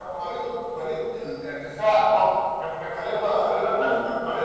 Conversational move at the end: taking over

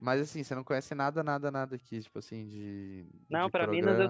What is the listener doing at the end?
taking over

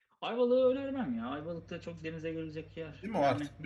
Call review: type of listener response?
taking over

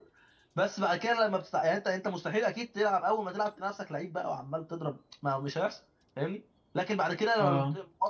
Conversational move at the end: listening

